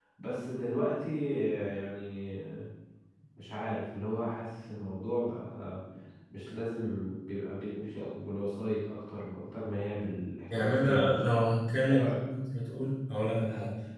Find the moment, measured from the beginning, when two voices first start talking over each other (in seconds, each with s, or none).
10.5 s